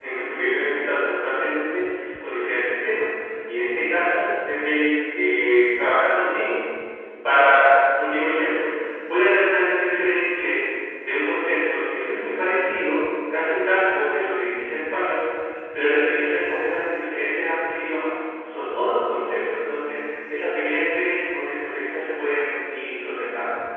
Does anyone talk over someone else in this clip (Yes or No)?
No